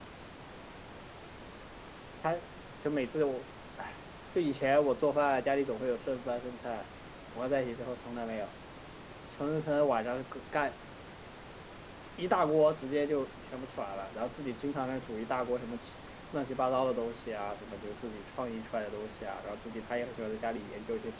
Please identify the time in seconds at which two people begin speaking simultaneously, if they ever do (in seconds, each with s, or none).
none